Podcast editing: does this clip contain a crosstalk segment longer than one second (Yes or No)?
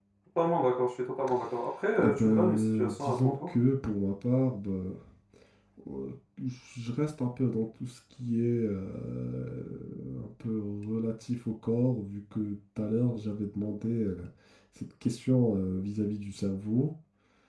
Yes